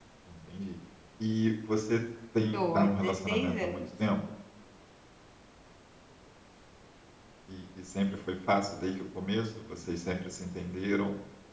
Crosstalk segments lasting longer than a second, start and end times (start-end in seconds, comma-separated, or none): 2.5-3.8